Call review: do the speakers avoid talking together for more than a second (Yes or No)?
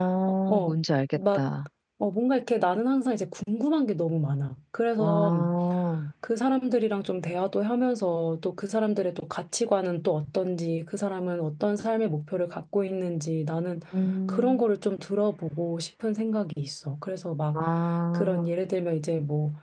Yes